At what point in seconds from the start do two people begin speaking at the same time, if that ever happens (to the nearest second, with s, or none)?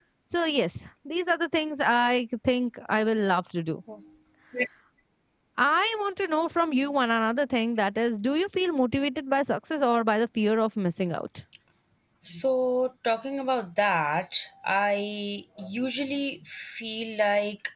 none